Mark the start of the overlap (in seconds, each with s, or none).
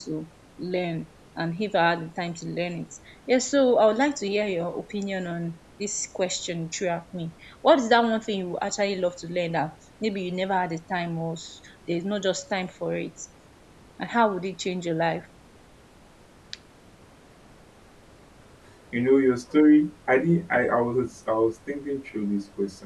none